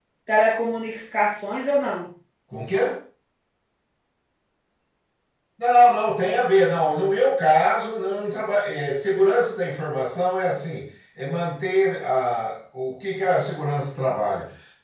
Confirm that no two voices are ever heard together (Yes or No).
Yes